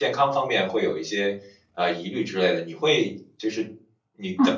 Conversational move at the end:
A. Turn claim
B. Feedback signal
B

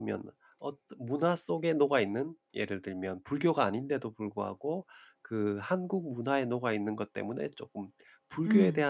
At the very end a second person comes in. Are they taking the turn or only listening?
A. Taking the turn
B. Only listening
B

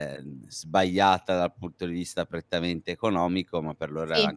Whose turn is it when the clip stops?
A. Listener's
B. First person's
B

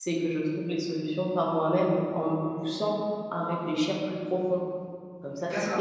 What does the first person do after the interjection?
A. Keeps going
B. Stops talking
A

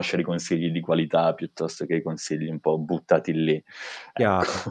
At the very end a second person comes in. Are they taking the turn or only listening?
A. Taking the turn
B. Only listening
A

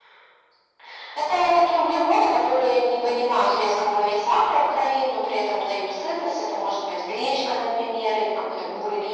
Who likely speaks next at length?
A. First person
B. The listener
A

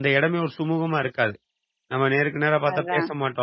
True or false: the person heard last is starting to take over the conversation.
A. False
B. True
A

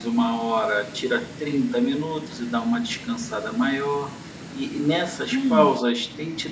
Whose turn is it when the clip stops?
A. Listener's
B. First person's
B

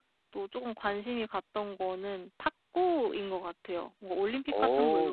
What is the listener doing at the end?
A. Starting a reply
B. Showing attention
B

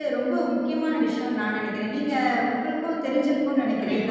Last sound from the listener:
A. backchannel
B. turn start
B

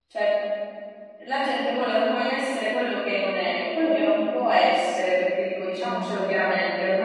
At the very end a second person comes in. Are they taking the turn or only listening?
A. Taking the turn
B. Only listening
B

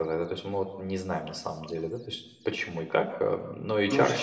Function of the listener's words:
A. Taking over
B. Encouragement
A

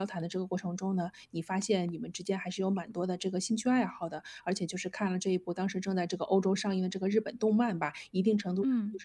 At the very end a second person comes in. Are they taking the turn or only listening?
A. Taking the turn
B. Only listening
B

